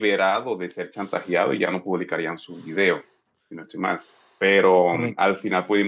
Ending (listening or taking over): listening